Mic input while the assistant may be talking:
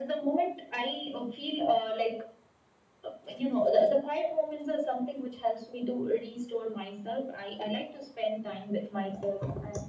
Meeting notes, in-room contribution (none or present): none